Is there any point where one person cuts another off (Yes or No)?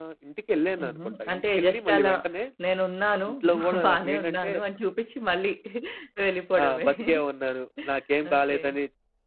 Yes